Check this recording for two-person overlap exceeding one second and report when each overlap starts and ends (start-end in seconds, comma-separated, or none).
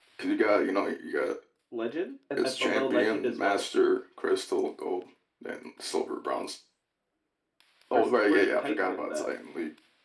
2.4-3.6, 7.9-9.3